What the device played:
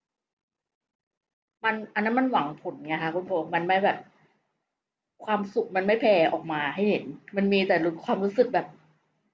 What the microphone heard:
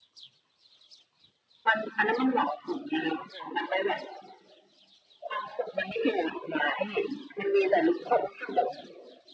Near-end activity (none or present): none